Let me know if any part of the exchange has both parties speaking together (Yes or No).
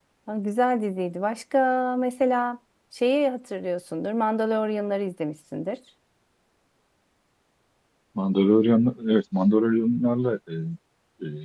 No